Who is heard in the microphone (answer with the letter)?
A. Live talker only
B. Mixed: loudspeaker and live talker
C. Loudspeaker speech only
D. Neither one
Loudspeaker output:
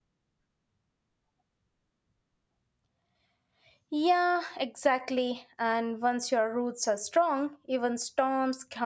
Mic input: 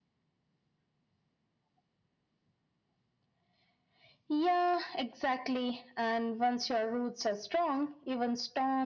C